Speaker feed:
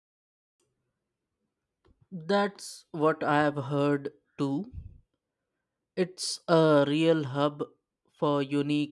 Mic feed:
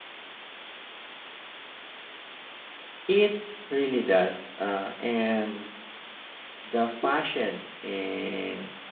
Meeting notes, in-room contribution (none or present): present